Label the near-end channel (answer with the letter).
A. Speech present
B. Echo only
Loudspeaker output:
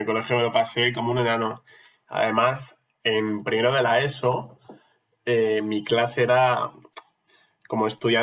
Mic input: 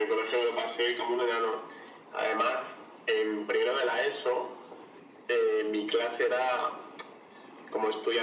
B